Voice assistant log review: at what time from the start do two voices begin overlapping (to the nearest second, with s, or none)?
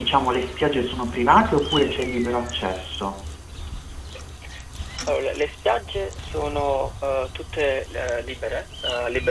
none